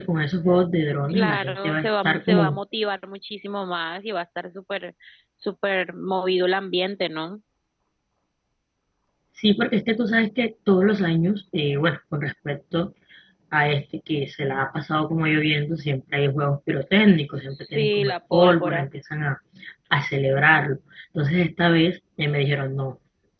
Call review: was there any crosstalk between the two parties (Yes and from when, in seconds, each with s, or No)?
Yes, from 1.1 s